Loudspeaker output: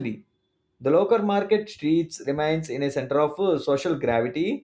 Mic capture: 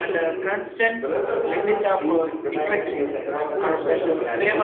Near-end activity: present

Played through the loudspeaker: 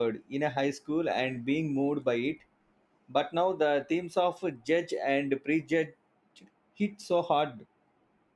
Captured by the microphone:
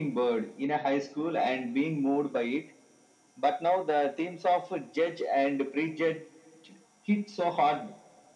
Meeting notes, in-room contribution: none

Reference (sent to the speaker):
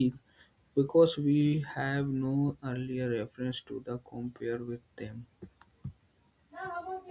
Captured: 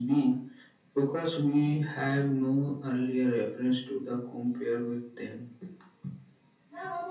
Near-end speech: none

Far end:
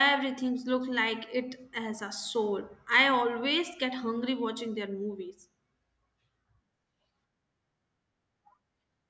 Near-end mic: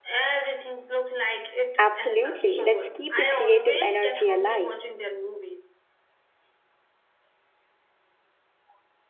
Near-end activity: present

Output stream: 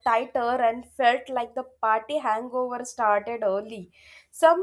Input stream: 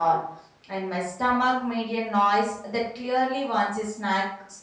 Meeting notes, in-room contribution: present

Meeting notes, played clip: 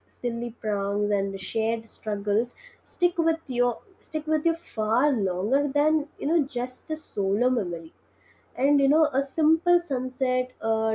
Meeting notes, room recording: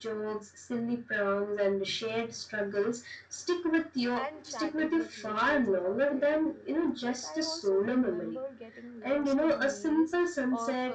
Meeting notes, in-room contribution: present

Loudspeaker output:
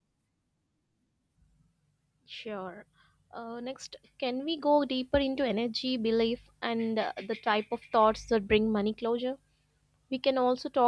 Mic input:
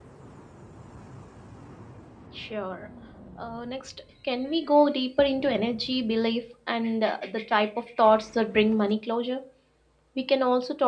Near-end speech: none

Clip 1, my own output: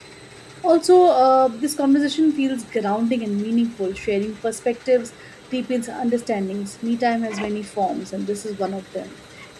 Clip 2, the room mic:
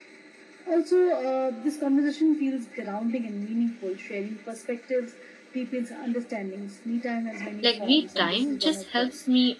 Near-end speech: present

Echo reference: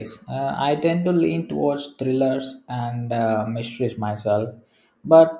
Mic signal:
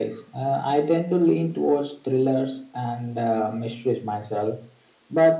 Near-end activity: none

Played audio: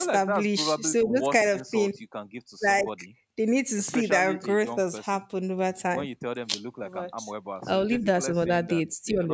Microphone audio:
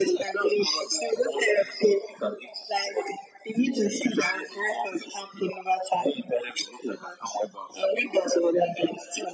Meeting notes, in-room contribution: none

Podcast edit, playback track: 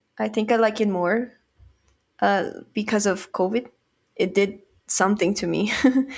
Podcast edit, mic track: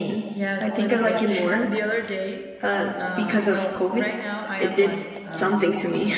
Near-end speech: present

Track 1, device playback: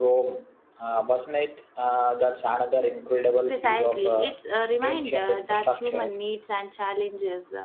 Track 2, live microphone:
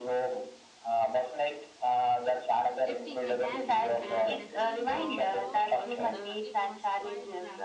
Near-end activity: present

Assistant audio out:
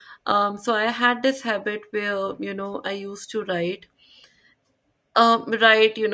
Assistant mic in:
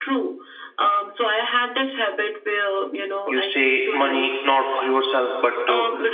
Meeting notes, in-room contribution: present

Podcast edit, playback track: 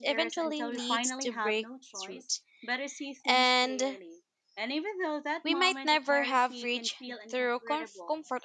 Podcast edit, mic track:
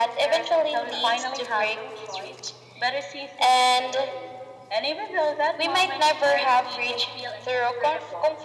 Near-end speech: none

